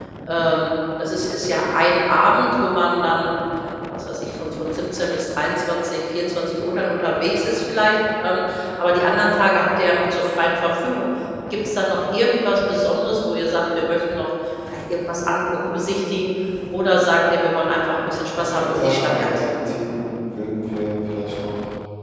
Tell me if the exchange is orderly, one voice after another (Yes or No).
No